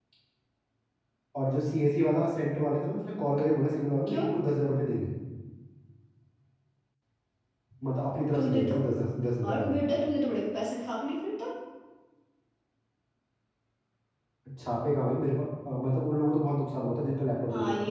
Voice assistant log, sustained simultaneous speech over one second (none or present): none